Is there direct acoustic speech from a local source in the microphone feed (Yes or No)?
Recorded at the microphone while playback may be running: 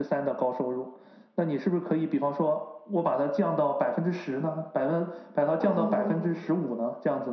Yes